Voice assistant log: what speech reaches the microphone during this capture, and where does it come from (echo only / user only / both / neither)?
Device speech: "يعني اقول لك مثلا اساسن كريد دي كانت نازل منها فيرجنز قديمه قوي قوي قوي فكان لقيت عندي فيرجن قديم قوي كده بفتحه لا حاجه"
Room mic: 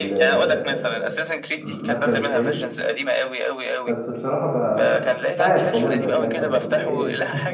both